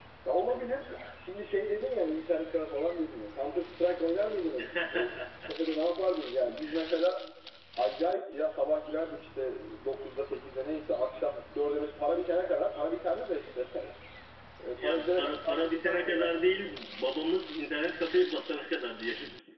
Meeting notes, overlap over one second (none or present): present